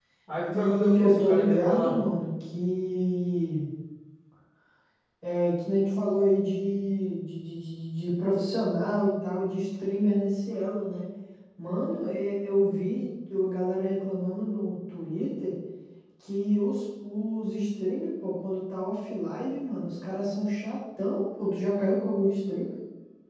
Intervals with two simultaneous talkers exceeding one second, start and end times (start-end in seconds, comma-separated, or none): 0.5-1.9